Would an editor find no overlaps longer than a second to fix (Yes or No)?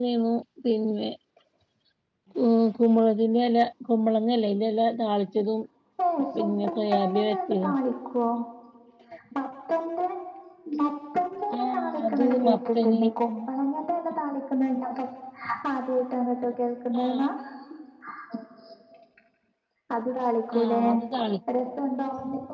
No